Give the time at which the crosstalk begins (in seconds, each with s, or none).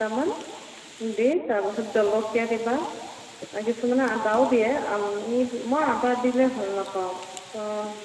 none